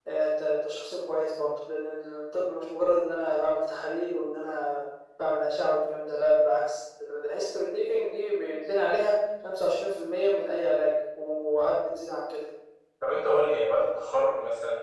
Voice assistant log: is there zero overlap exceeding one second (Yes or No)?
Yes